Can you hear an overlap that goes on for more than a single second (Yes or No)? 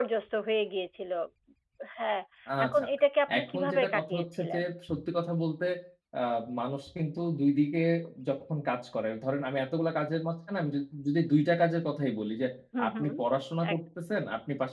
Yes